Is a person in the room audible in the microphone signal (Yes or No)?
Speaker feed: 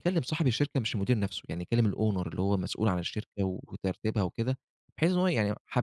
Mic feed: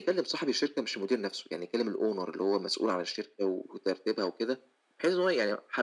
No